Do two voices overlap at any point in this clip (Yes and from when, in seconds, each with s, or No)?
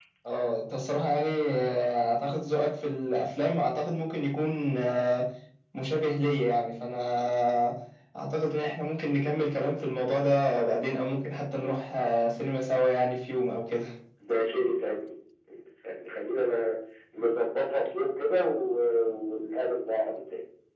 No